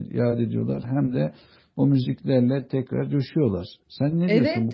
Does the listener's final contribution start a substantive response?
Yes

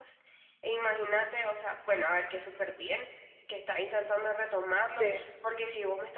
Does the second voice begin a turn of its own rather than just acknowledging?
No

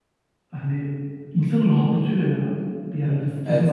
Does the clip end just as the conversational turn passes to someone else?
Yes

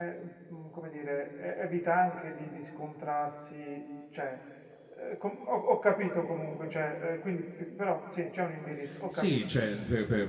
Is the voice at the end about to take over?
Yes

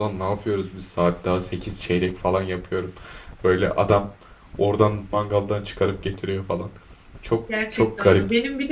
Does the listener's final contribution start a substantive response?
Yes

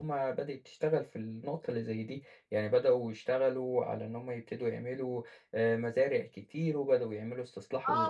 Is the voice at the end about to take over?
Yes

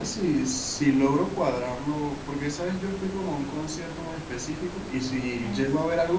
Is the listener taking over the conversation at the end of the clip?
No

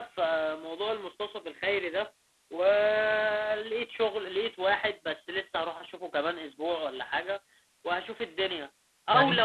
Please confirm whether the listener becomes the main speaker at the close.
No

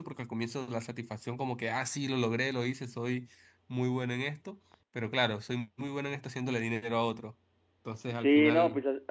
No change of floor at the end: No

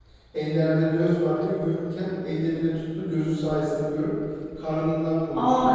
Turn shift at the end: Yes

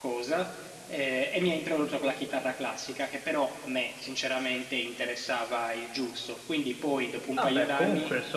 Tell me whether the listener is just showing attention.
No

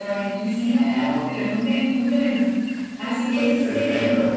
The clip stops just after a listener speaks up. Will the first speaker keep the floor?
Yes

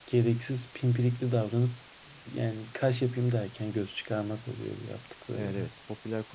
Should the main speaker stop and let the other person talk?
Yes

